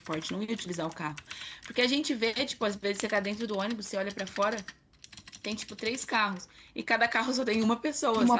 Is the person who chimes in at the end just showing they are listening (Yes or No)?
Yes